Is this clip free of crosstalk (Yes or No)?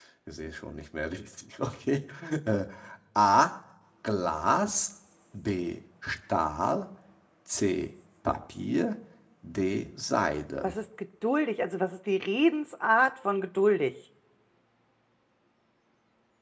Yes